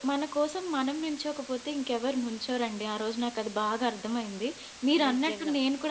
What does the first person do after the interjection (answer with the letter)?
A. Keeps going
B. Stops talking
A